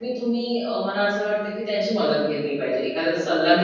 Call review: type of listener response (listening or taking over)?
listening